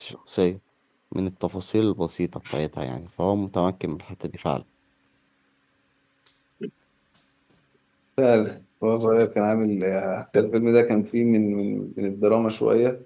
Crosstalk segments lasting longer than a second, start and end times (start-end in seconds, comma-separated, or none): none